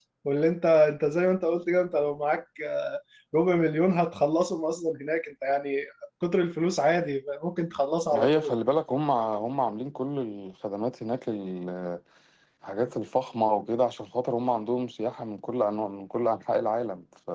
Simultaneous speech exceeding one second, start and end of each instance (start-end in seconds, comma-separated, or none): none